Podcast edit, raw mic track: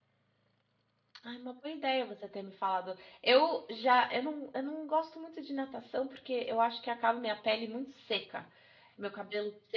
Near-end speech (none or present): present